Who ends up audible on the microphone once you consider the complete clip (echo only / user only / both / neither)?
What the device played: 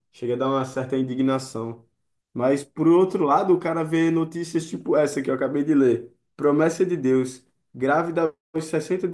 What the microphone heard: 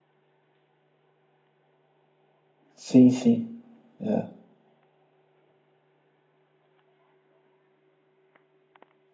user only